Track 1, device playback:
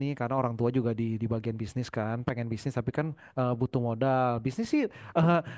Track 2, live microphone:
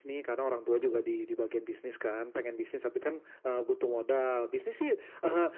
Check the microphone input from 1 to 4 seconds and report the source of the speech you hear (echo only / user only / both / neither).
echo only